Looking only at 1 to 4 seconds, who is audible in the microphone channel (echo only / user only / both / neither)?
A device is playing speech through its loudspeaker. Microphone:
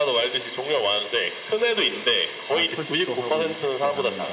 both